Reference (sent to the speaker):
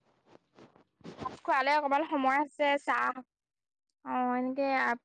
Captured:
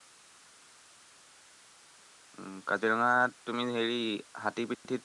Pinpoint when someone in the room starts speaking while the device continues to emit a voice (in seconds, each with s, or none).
2.4 s